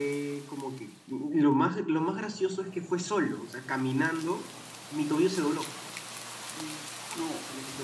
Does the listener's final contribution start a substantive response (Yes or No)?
No